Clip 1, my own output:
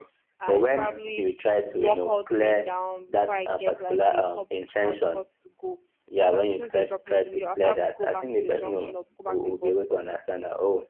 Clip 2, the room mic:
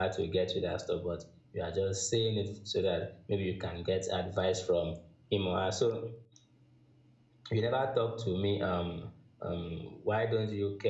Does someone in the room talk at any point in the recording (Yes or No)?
Yes